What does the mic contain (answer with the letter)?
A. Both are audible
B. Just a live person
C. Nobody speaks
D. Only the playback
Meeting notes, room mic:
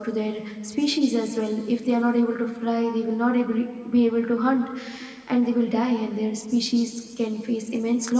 D